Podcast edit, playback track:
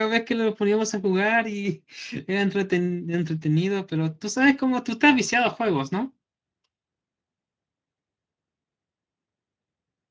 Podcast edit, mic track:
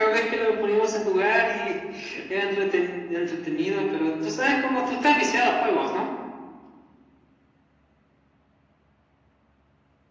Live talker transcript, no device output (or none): none